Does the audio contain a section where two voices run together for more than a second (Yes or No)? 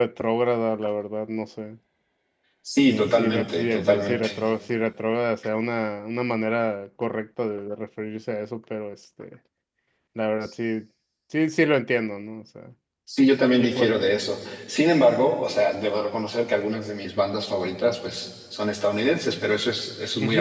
Yes